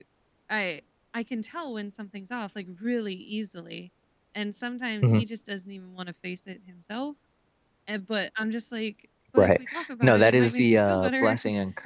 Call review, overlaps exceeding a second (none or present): present